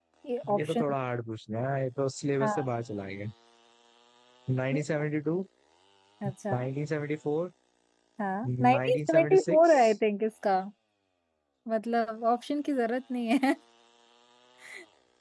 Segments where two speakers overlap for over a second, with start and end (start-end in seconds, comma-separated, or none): 8.4-9.9